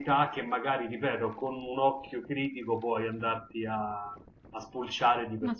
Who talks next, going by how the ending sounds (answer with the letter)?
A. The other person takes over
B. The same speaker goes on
A